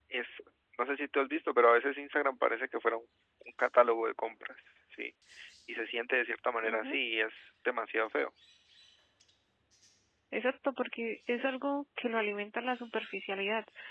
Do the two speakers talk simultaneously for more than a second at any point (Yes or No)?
No